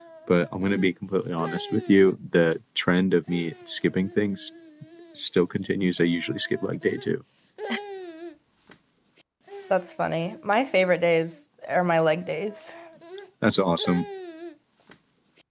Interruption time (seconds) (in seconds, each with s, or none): none